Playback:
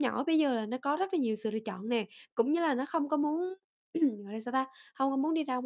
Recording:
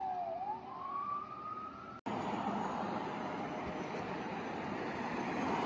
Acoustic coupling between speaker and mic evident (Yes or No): No